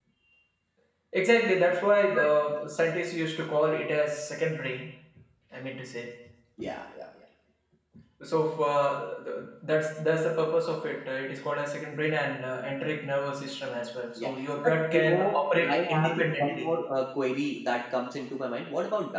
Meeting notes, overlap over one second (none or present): present